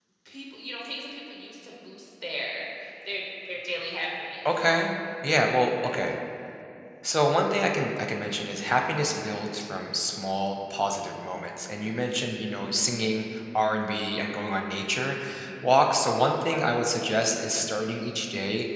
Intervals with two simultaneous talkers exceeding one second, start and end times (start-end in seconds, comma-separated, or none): none